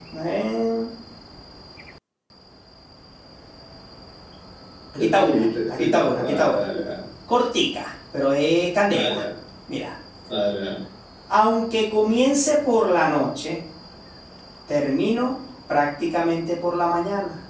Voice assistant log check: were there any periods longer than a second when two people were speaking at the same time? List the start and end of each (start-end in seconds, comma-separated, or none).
5.0-6.6